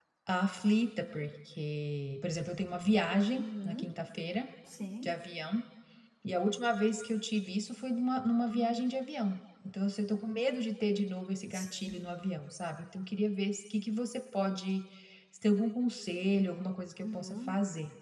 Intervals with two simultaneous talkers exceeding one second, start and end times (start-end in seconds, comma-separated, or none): none